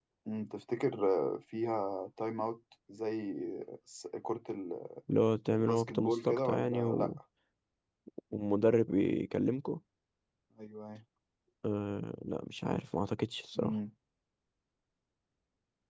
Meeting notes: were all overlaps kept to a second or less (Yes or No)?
No